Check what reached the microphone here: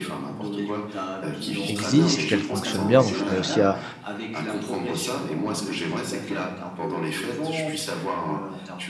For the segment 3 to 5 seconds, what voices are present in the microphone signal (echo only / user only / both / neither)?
both